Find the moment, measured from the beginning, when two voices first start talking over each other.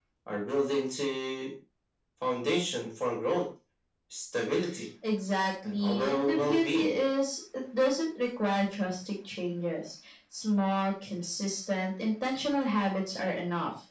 6 s

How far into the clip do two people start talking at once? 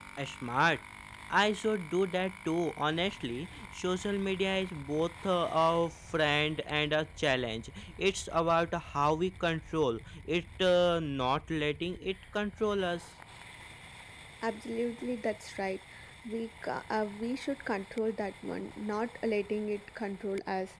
none

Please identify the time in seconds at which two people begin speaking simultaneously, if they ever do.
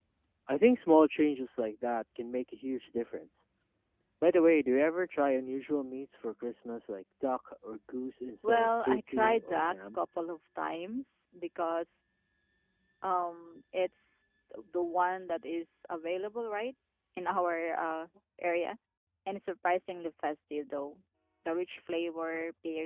8 s

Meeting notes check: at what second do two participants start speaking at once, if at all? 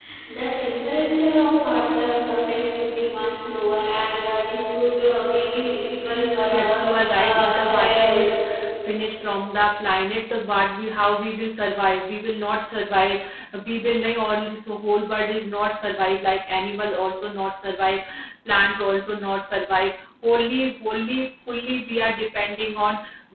7 s

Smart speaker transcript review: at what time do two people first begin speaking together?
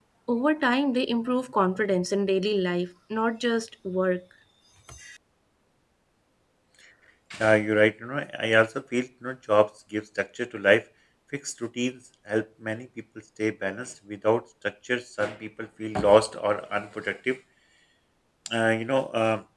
none

